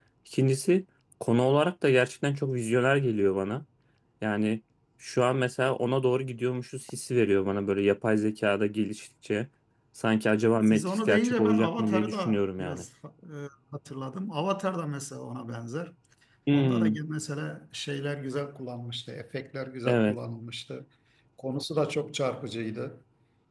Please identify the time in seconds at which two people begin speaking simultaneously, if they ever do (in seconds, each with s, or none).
10.7 s